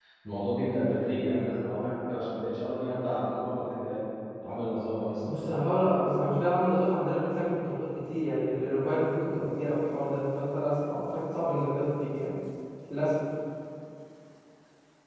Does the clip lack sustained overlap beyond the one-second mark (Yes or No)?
Yes